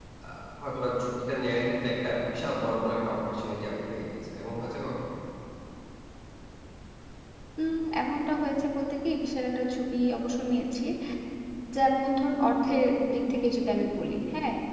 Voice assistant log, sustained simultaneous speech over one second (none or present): none